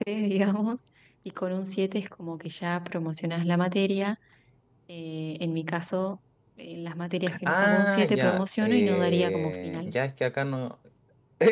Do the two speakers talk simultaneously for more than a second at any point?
Yes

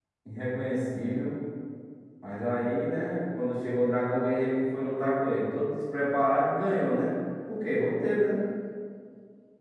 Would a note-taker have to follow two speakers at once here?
No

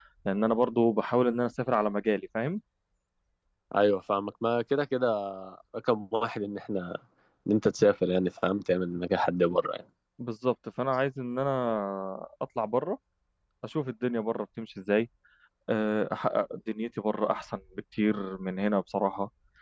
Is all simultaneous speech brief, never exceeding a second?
Yes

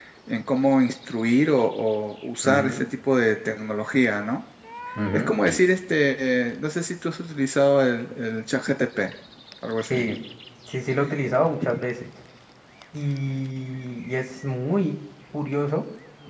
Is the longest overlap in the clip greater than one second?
No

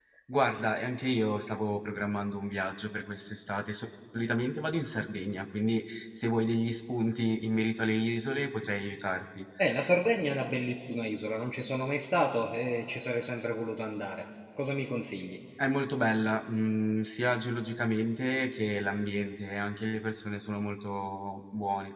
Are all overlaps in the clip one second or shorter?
Yes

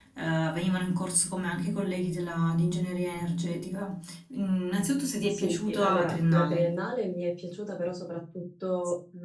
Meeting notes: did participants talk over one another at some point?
Yes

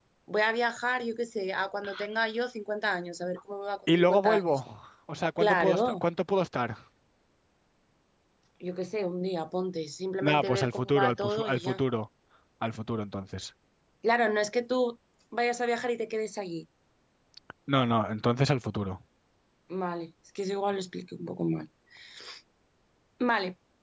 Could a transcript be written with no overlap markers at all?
No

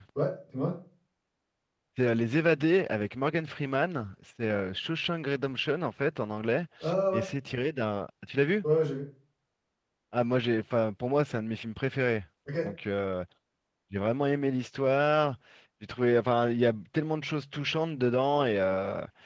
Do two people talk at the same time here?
No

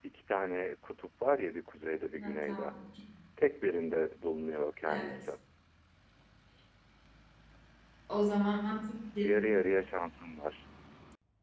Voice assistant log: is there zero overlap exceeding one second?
Yes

